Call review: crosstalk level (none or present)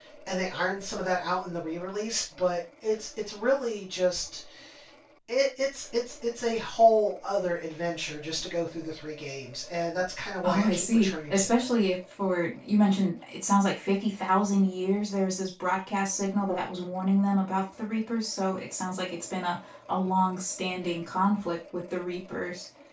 present